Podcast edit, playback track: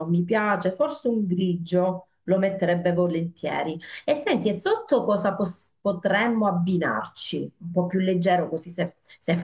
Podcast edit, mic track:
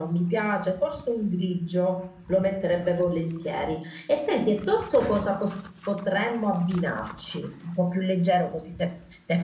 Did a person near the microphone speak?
No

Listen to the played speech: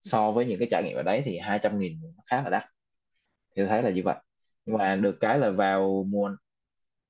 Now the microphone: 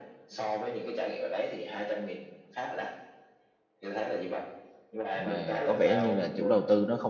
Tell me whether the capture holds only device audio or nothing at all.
No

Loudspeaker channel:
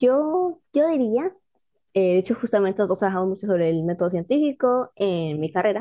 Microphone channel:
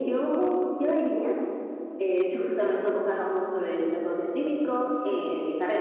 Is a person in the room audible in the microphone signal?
No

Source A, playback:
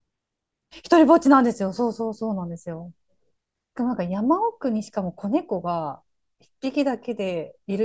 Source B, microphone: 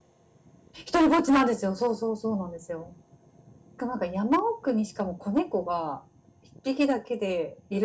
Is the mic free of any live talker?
Yes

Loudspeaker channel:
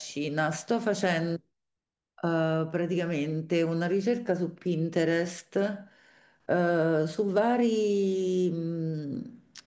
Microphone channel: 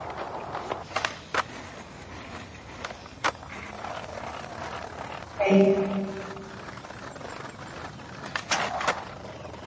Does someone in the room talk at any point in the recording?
Yes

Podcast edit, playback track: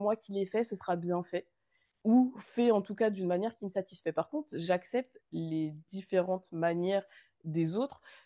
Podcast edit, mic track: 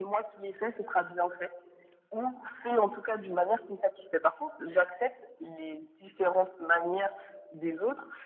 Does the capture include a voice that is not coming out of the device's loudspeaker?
No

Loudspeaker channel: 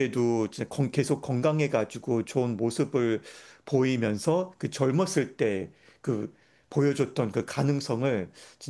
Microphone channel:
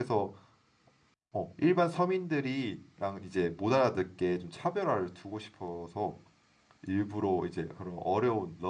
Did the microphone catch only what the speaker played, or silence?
No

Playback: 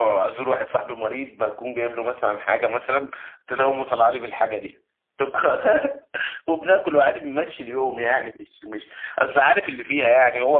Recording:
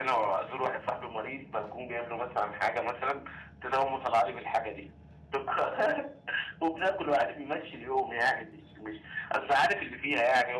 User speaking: No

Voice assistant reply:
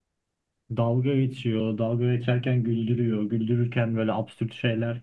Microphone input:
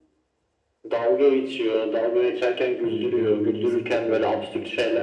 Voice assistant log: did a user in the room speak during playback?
Yes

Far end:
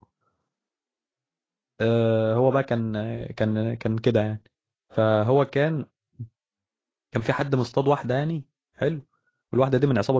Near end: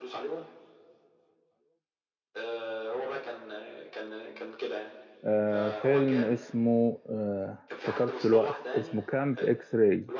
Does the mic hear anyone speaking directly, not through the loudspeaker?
Yes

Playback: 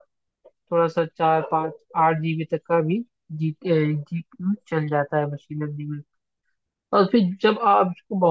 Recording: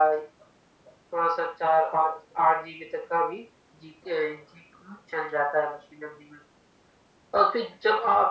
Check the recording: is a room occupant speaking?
No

